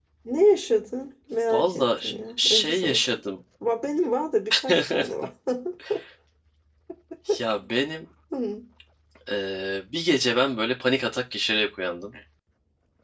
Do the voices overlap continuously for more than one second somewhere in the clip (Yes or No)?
Yes